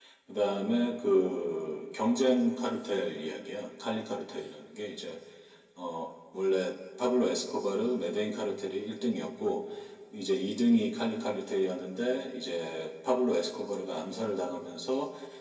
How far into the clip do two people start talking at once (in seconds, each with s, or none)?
none